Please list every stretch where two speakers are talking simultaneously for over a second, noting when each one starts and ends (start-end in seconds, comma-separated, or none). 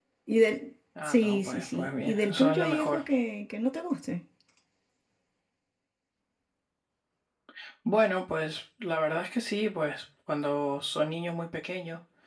1.0-3.0